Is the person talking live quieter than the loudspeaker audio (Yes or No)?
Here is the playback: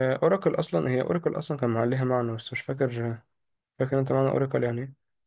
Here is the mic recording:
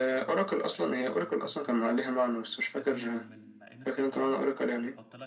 Yes